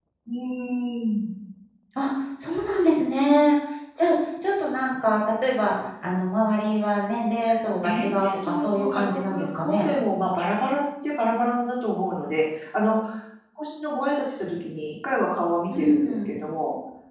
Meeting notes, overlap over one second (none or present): present